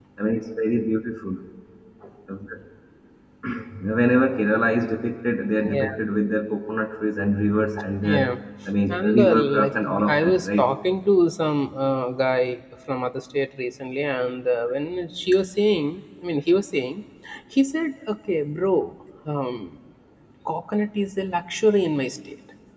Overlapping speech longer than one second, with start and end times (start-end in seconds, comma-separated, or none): 8.9-10.7